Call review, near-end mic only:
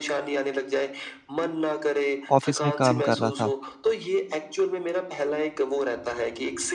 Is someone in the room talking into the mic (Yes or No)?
Yes